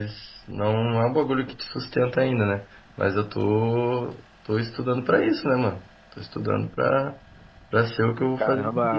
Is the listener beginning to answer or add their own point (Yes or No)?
Yes